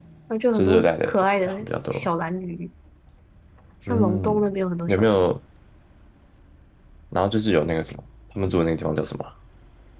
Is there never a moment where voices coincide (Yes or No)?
No